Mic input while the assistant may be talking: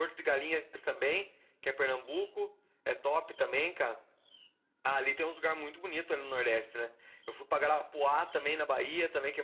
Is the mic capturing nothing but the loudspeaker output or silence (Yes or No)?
Yes